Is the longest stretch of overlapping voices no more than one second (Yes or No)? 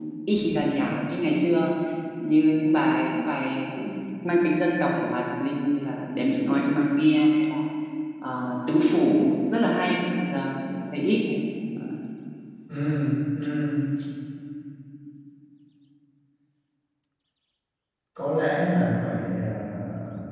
Yes